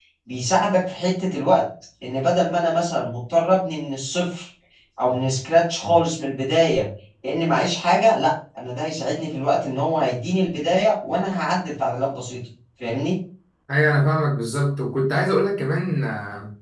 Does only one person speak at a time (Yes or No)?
Yes